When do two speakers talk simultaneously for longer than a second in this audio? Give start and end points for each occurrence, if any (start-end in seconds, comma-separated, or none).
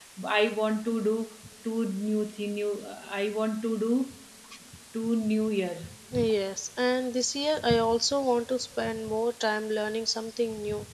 none